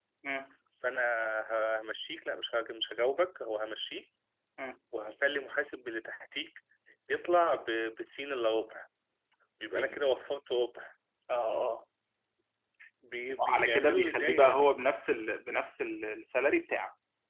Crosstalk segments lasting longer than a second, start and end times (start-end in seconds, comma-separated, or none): 13.3-14.7